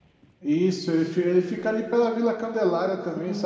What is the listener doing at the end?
taking over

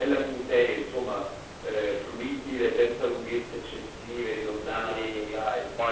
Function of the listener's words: taking over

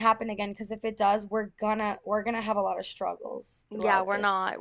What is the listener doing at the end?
taking over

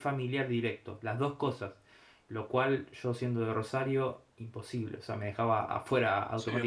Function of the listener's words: taking over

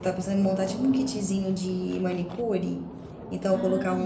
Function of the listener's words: listening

